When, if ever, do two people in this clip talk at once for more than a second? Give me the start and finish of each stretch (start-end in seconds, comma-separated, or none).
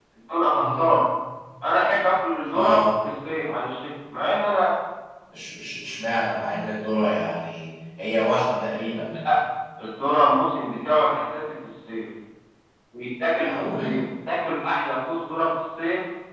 none